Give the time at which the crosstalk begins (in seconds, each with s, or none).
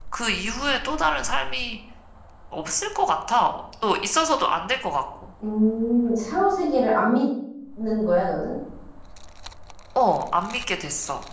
none